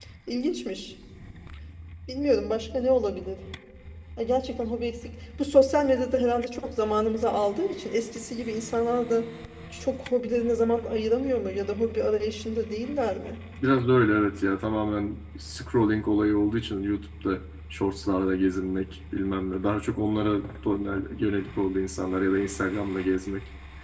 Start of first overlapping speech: none

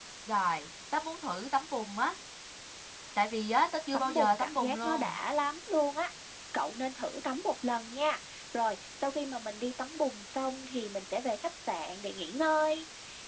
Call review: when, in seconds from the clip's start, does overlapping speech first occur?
3.9 s

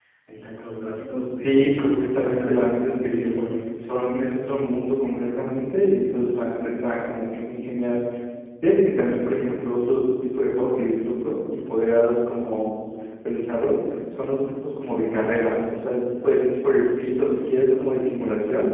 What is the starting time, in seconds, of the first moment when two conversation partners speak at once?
1.4 s

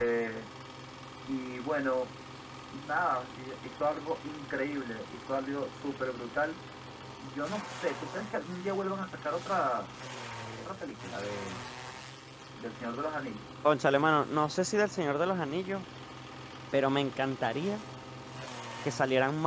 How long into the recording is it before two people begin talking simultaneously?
none

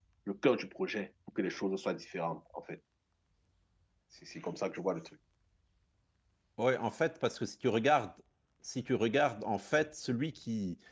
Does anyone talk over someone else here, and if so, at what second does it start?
none

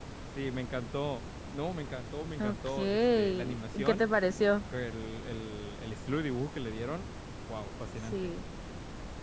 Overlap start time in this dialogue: 2.4 s

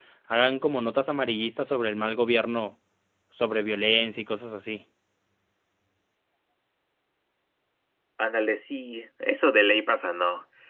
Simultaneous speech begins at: none

